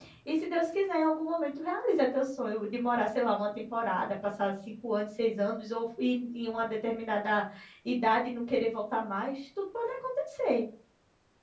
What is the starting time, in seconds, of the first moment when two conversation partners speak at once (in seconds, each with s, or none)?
none